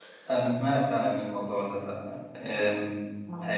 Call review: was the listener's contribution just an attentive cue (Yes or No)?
Yes